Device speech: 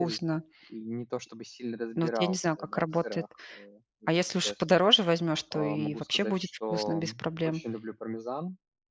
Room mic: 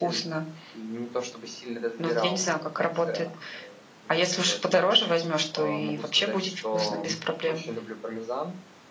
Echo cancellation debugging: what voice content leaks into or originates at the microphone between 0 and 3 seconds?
echo only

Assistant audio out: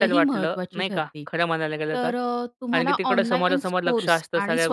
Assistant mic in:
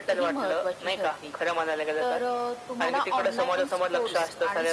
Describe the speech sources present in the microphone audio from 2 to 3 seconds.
echo only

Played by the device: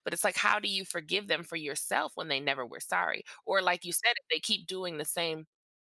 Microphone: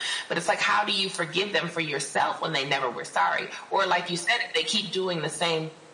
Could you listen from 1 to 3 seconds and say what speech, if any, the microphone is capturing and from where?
echo only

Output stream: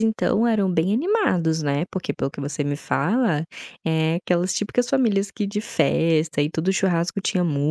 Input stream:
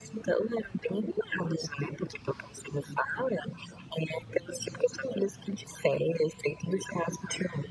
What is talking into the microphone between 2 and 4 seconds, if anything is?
echo only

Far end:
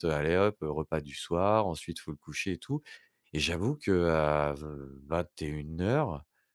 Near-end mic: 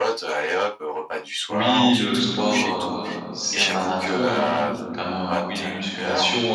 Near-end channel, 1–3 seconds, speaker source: both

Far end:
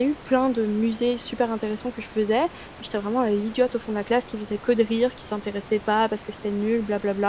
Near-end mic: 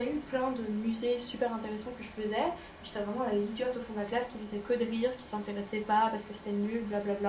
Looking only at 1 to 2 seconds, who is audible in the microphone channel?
echo only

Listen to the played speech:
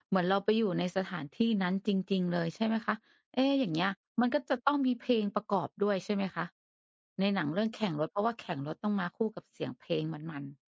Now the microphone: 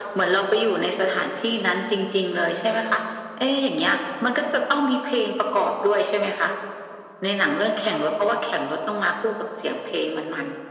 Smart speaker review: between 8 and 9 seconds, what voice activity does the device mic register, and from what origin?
echo only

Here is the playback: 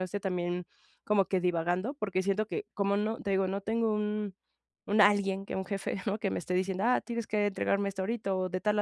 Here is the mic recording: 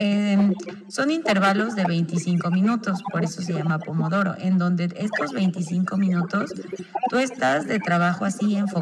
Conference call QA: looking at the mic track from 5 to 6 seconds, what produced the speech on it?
both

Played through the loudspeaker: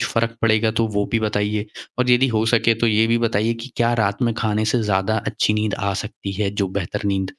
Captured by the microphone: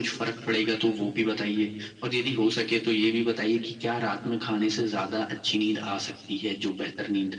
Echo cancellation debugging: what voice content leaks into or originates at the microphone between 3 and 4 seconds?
echo only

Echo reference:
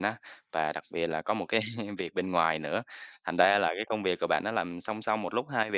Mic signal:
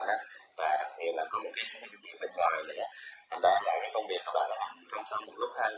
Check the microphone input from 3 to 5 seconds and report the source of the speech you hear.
echo only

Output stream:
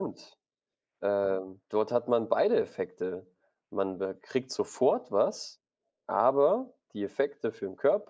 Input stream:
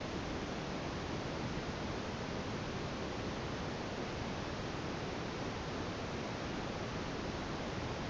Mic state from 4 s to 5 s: neither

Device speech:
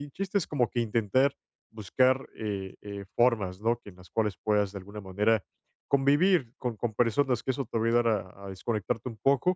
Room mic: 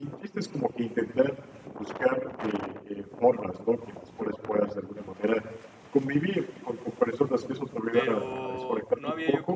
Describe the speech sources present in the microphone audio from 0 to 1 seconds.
echo only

